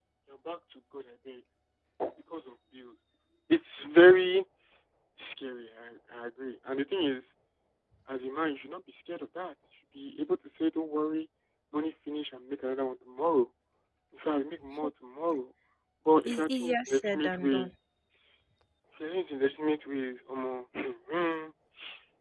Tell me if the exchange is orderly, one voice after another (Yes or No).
No